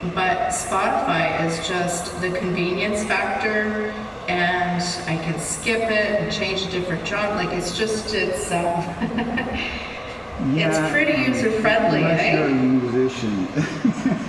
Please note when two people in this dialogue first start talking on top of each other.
10.5 s

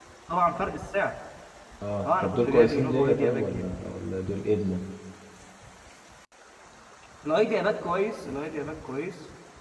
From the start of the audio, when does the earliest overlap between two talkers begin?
2.1 s

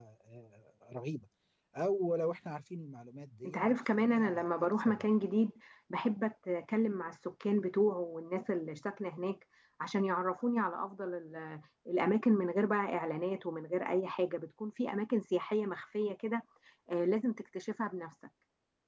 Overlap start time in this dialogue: 3.5 s

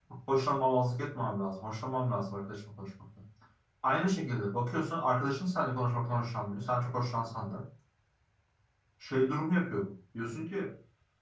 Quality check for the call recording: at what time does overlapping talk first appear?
none

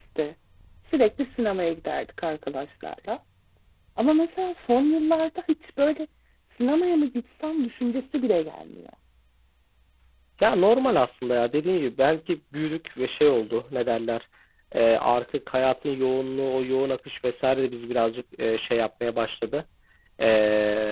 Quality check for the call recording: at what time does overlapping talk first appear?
none

